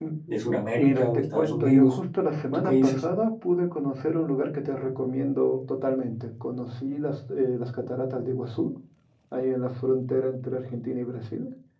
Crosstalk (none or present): present